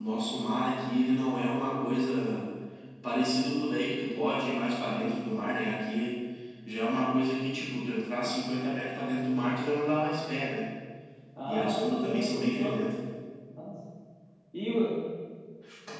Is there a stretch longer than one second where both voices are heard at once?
Yes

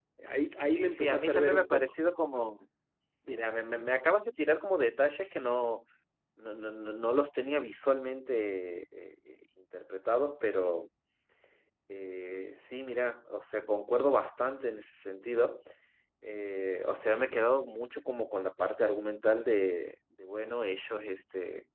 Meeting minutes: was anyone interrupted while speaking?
Yes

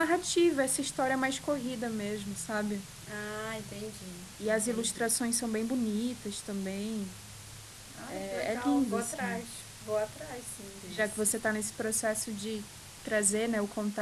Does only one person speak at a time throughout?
No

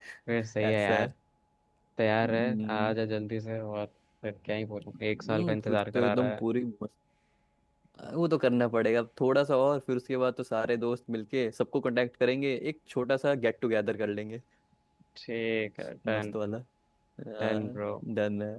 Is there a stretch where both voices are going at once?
Yes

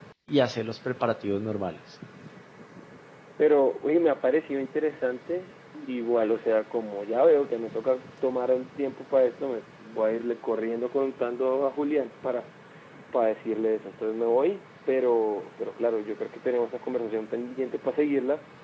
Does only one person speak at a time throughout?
Yes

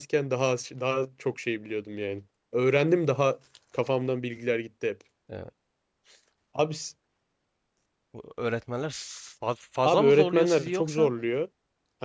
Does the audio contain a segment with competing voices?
Yes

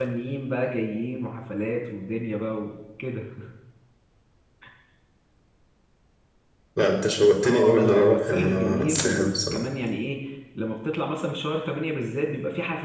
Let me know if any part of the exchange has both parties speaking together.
Yes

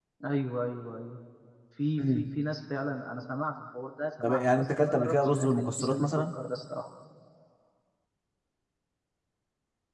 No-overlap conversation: No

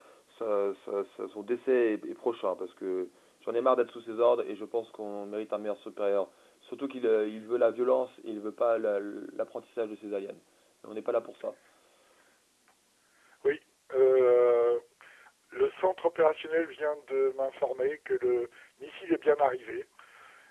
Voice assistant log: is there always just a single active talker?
Yes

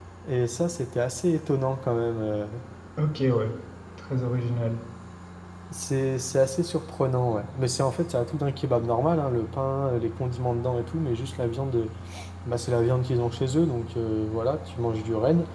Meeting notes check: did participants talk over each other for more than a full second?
No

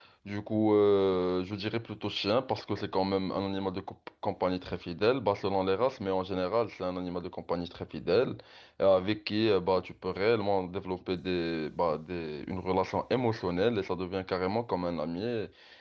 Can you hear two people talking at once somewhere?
No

